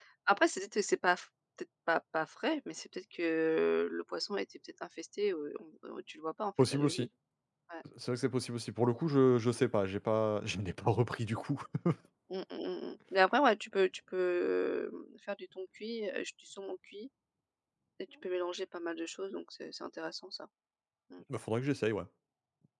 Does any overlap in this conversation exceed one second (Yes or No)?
No